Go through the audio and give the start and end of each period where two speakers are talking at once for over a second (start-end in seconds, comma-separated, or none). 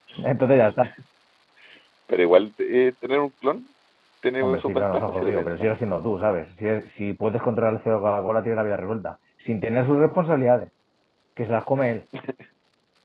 4.4-5.7